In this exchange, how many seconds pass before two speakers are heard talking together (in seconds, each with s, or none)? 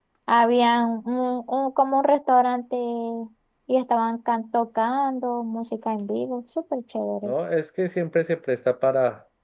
none